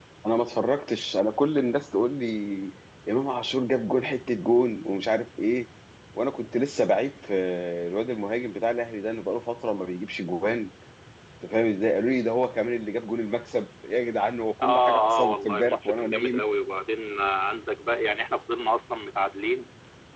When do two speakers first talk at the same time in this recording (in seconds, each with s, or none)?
14.6 s